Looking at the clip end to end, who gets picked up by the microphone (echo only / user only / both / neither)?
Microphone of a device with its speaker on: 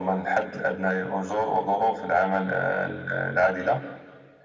echo only